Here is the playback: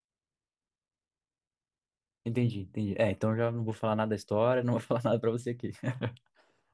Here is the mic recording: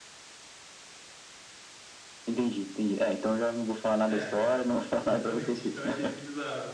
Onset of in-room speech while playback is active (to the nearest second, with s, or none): 4 s